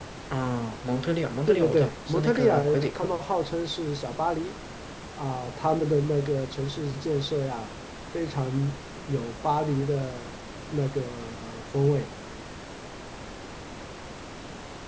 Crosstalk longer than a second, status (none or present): present